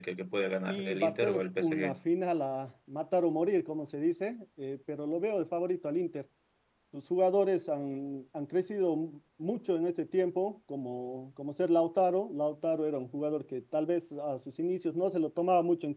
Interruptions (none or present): present